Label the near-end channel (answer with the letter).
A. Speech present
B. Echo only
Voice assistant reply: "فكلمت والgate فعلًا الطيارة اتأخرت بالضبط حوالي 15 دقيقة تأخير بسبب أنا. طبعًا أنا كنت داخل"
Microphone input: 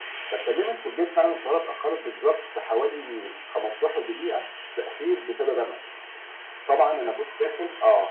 B